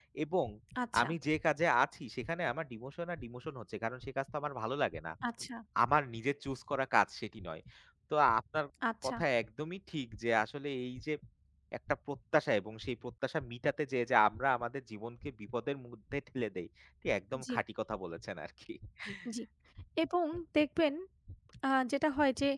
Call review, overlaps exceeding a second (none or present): none